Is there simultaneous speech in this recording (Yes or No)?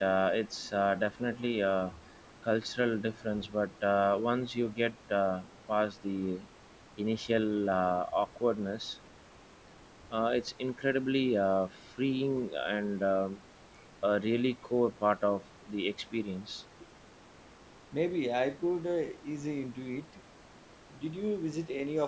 No